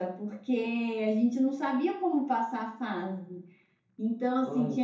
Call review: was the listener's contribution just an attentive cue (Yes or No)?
Yes